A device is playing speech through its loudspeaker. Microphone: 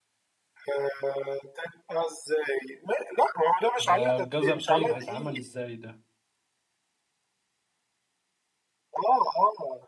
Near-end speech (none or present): present